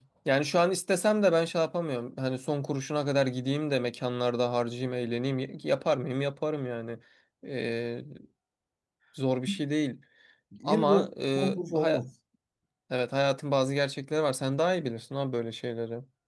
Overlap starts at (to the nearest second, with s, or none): 11 s